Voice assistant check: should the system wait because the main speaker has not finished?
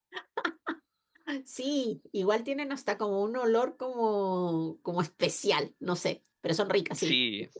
No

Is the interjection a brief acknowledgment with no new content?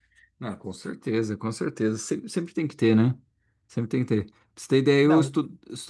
Yes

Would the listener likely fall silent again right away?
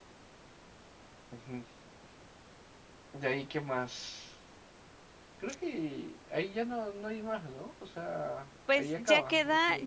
No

